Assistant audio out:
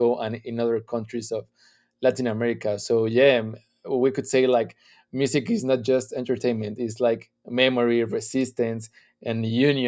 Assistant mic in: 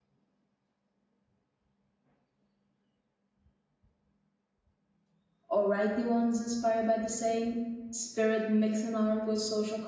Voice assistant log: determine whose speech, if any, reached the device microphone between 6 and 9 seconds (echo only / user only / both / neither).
user only